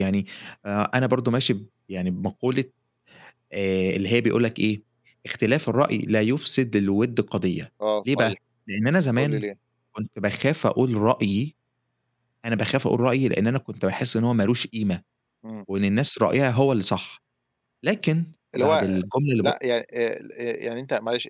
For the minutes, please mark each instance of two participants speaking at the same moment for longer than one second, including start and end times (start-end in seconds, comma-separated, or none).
none